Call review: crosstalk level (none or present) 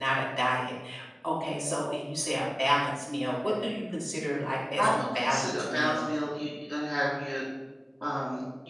present